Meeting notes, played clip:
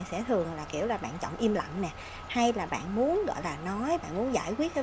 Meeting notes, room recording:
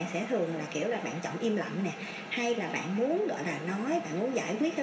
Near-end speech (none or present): none